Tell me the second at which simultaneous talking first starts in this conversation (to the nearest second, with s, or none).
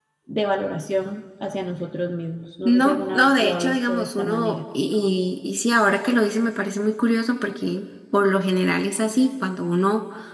3 s